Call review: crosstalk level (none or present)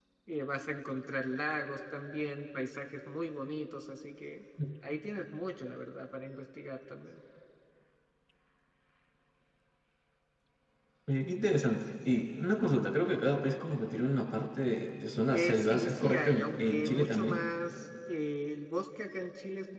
present